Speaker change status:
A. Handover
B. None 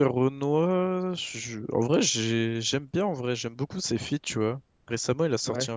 B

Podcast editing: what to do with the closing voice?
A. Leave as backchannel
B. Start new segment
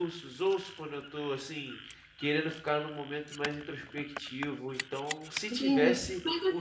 B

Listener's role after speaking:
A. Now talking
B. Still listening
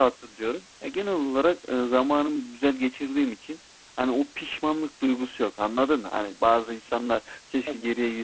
B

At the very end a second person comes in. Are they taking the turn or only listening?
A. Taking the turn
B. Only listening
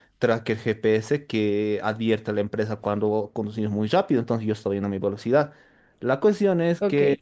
B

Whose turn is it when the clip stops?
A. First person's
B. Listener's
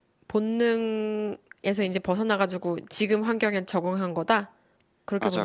B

